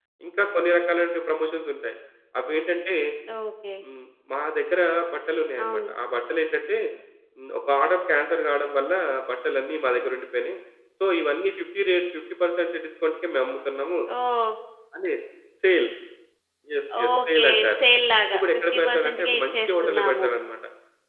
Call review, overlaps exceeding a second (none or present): present